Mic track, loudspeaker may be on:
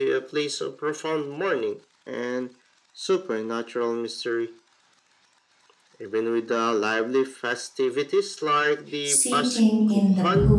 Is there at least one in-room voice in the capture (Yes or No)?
Yes